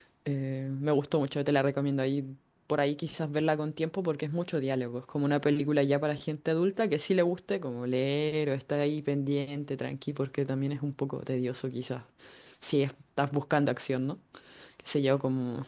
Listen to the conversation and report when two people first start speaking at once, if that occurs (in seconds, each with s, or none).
none